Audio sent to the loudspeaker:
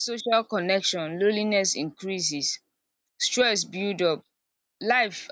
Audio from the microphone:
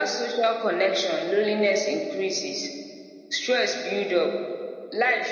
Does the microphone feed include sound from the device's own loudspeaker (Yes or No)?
Yes